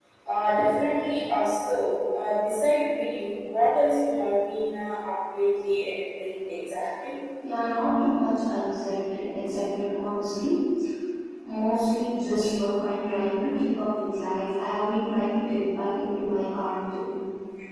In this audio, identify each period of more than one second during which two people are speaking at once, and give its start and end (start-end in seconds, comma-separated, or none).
none